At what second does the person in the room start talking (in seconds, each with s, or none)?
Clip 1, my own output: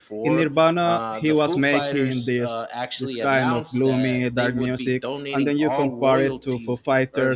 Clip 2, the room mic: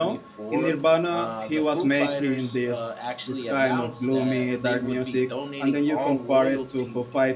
none